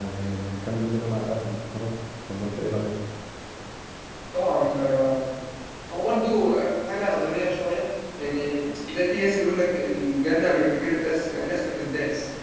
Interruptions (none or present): none